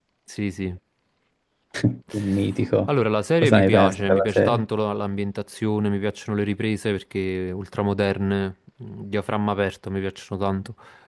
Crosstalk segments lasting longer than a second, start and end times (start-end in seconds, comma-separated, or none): 3.4-4.6